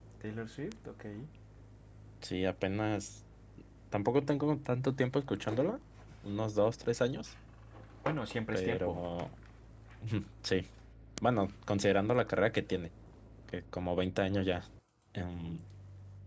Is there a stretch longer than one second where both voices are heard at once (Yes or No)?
No